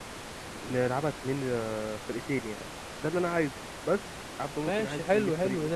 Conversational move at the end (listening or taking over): taking over